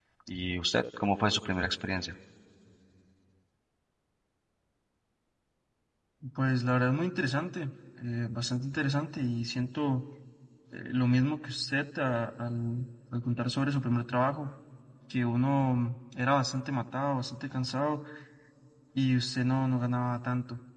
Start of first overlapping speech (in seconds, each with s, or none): none